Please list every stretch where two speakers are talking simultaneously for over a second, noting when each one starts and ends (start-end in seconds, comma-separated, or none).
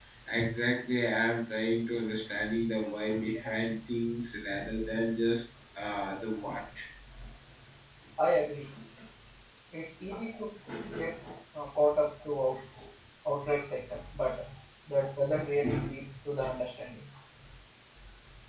none